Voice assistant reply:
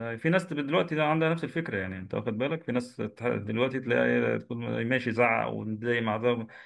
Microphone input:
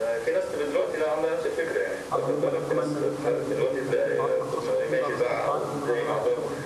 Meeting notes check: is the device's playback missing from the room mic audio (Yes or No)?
No